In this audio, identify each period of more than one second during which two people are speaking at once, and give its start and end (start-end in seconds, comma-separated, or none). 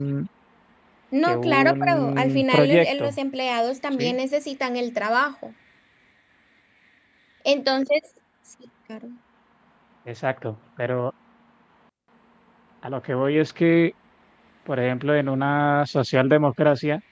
1.2-3.2